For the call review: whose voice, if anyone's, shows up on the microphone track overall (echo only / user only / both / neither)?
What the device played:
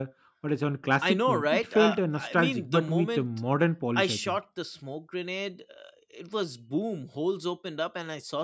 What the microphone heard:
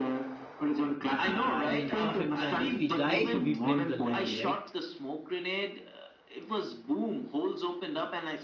both